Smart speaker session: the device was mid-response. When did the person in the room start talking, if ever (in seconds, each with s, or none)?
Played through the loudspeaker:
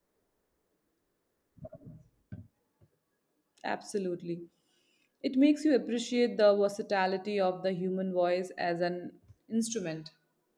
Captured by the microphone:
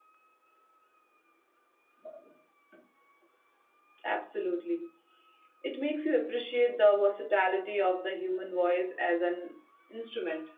none